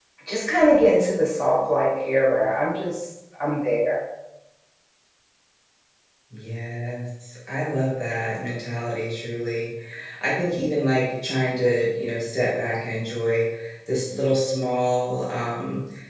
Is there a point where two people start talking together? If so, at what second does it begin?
none

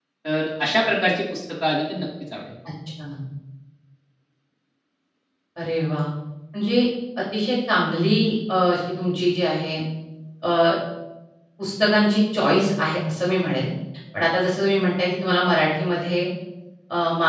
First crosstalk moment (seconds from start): none

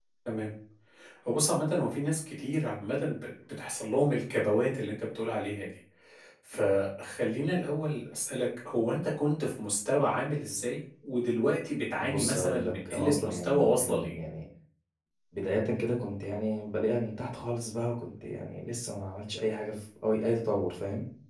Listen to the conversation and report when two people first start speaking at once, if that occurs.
12 s

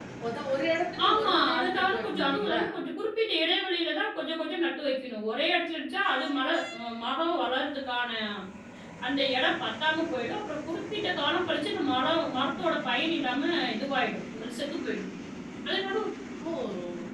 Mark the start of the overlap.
1 s

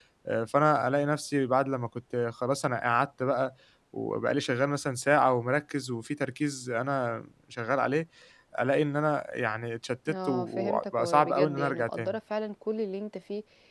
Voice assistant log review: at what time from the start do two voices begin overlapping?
10 s

